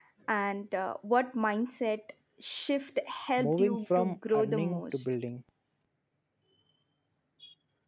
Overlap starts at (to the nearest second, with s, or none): 3 s